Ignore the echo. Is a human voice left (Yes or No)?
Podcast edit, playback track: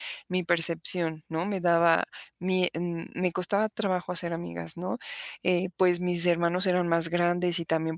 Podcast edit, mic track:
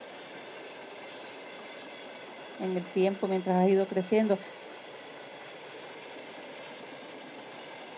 Yes